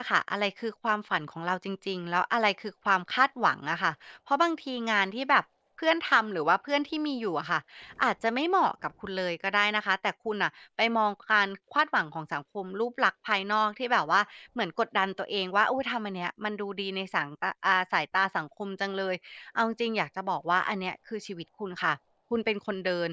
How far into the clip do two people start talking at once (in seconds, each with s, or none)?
none